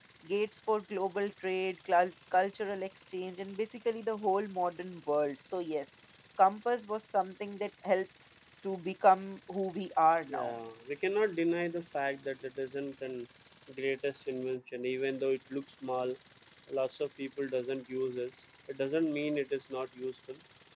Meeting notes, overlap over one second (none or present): none